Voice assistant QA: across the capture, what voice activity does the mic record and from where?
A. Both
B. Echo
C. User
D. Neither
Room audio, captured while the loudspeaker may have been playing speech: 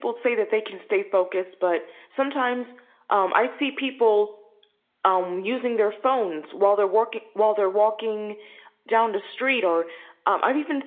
B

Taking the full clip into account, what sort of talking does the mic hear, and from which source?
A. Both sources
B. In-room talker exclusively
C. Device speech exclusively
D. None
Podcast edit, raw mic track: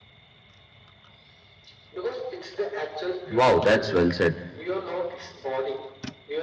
A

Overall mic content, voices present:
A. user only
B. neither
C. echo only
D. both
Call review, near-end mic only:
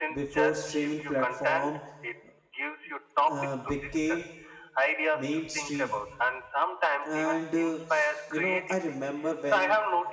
D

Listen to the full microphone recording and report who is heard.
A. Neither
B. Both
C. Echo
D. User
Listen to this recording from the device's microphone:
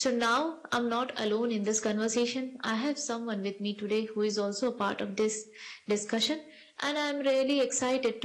C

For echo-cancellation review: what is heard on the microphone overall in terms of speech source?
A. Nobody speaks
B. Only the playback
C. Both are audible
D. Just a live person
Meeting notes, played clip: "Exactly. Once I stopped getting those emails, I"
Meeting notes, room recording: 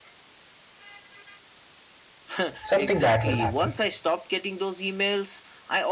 C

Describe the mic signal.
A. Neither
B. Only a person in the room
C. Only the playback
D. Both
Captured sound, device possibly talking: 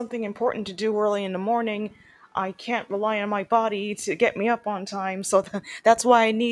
B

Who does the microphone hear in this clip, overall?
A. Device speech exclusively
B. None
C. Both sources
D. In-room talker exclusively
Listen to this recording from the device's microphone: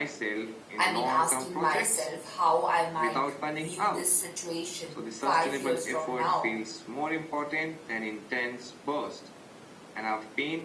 C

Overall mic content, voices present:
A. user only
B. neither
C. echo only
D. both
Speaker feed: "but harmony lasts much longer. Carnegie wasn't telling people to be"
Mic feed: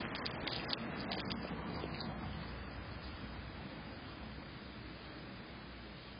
B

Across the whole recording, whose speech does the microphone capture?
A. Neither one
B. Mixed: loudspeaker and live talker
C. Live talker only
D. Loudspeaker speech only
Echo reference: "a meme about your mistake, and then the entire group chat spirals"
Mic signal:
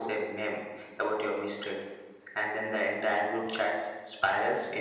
D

